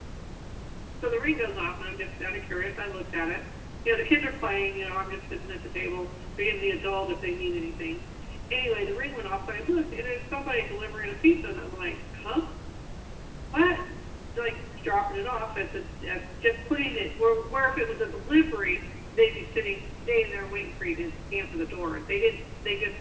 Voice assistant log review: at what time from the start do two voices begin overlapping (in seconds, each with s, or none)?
none